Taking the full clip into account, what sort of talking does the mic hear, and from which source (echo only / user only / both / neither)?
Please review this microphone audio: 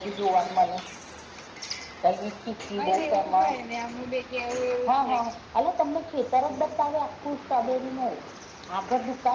both